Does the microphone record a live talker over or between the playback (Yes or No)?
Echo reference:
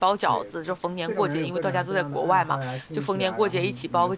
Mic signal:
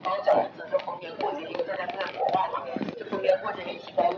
No